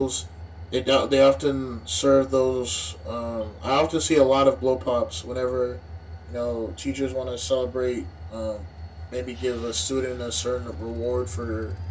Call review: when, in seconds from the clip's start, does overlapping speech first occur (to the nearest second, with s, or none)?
none